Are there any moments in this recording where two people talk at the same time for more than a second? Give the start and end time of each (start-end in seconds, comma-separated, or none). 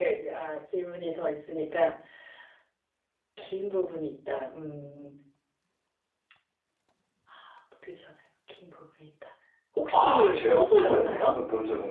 9.9-11.3